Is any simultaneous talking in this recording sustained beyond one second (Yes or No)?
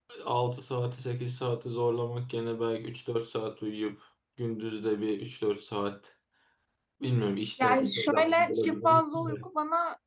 Yes